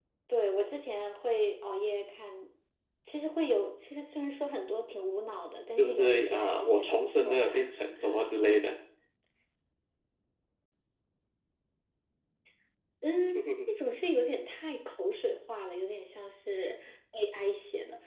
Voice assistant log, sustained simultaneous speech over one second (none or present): present